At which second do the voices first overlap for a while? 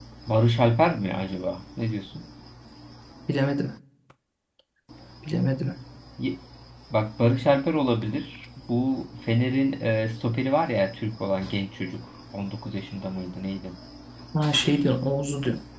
none

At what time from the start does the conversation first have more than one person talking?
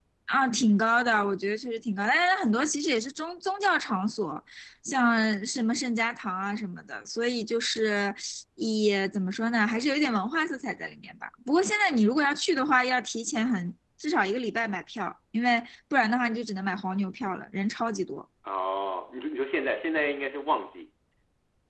none

